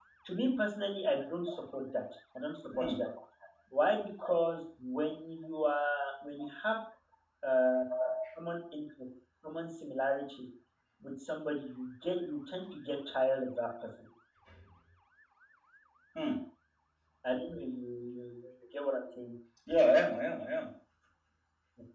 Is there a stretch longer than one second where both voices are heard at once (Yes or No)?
No